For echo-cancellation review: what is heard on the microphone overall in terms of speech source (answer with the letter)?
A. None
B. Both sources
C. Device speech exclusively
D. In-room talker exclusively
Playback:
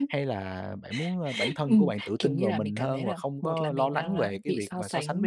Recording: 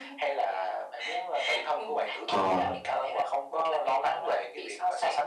B